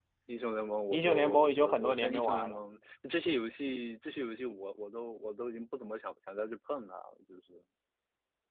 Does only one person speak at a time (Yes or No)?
No